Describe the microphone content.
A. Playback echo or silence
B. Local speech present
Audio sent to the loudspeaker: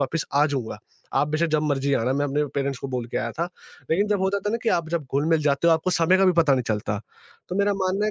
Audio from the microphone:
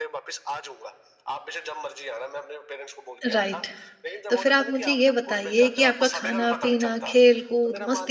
B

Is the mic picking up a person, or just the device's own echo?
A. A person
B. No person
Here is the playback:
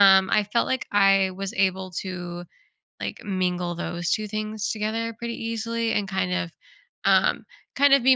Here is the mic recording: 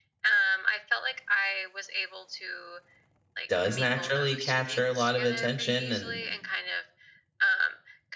A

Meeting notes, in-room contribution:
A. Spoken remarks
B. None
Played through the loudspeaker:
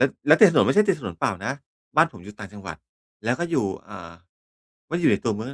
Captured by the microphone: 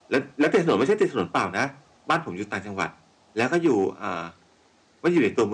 B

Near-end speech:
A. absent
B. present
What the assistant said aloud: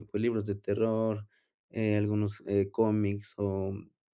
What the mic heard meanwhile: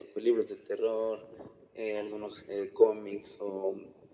A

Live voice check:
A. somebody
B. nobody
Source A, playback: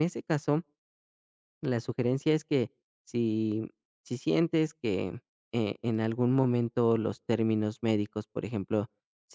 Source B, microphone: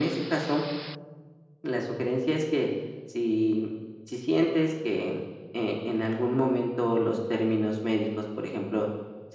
B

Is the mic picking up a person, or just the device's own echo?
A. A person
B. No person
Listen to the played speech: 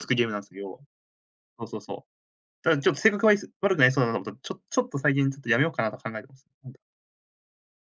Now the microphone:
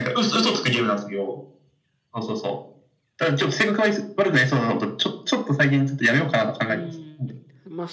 A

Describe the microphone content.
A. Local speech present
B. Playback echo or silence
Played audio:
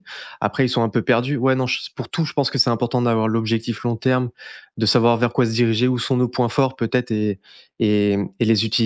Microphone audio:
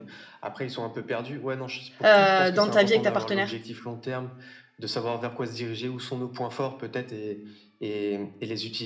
A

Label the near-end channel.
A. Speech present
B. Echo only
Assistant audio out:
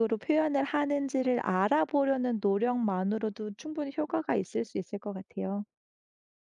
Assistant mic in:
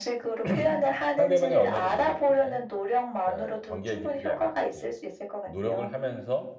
A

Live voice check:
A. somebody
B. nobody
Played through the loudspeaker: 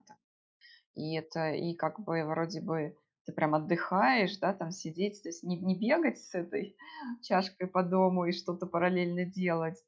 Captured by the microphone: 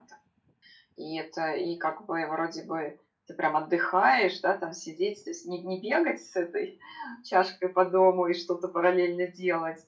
B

